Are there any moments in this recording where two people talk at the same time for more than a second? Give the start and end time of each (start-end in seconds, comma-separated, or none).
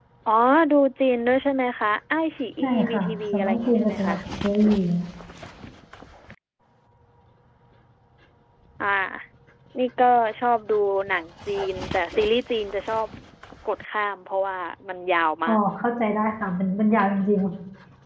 2.6-4.2